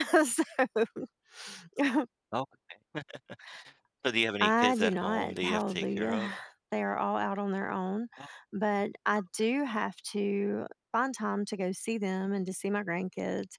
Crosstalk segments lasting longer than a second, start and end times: 4.4-6.3

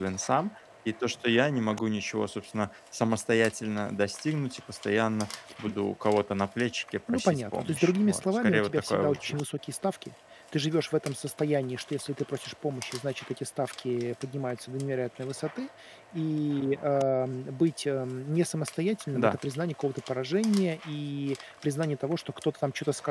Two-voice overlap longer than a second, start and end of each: 7.1-9.3

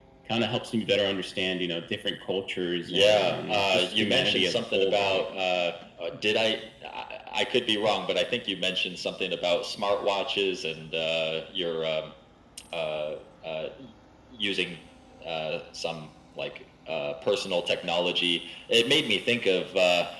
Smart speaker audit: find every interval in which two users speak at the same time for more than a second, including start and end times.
2.9-5.2

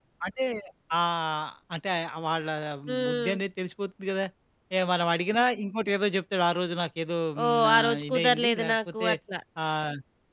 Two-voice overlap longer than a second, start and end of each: 7.4-9.1

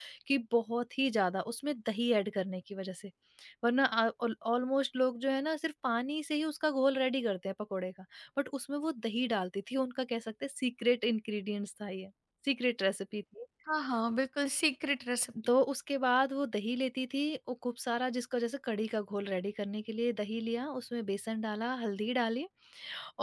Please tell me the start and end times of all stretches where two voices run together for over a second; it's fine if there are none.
none

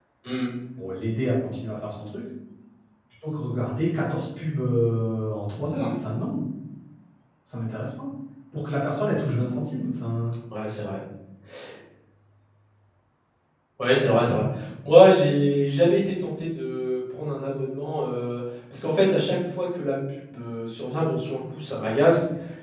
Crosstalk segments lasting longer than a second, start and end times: none

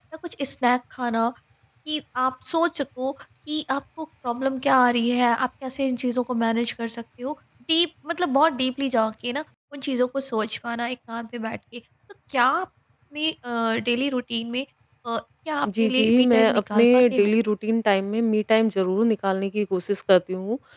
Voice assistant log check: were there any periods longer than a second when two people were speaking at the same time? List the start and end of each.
15.7-17.3

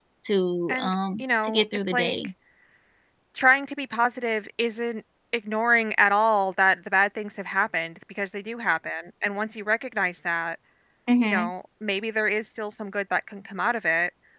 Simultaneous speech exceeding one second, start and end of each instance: 0.7-2.1

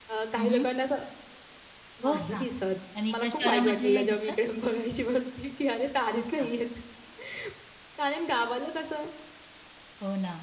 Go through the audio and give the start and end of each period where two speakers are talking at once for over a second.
3.1-4.3

